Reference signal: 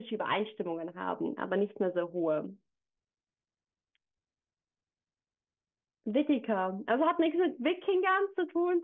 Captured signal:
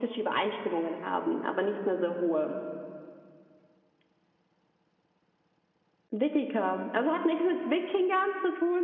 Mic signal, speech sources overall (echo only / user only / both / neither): echo only